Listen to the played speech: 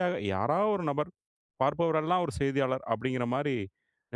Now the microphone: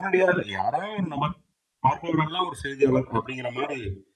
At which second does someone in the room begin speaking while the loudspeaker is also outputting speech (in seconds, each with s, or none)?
none